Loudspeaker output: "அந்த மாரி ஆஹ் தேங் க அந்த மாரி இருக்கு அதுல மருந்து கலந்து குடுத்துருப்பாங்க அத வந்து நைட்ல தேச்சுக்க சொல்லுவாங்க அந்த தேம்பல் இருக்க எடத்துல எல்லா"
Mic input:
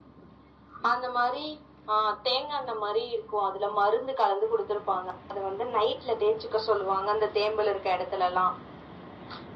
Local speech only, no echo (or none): none